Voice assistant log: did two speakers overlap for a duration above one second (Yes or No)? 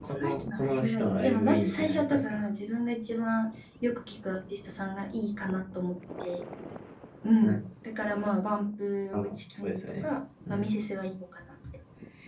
Yes